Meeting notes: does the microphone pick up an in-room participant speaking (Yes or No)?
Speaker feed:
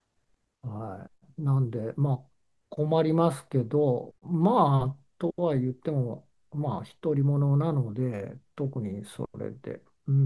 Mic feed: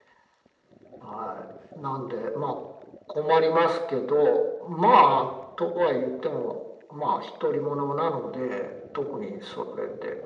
No